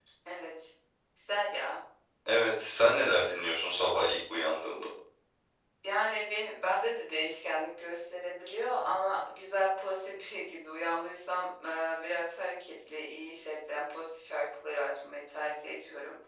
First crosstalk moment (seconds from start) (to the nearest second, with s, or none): none